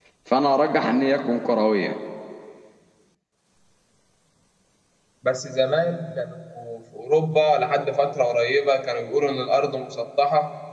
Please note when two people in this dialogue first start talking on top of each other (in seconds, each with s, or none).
none